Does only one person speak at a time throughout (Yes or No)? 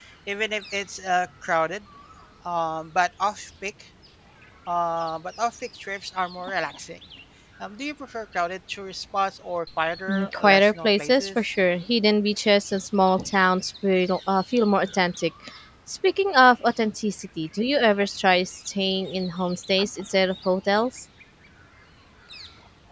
No